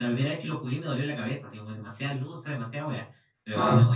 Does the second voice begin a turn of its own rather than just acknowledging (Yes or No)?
Yes